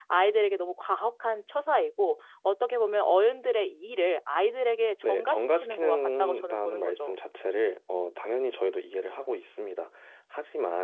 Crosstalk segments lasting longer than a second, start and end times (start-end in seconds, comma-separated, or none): 5.0-7.2